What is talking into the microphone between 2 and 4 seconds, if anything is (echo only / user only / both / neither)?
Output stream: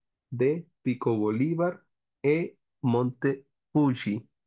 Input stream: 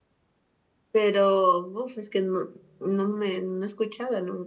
user only